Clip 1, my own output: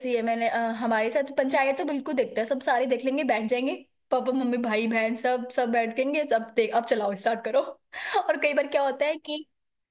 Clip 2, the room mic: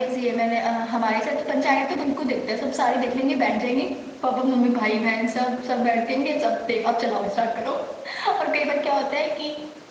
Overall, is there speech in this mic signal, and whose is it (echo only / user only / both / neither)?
echo only